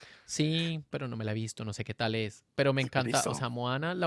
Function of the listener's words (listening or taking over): listening